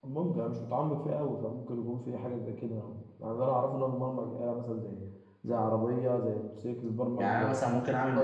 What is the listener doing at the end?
taking over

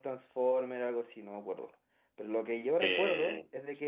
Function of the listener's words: listening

